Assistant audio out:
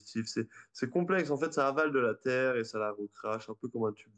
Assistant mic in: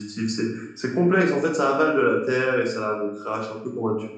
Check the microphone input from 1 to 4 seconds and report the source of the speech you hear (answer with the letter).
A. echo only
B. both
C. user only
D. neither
A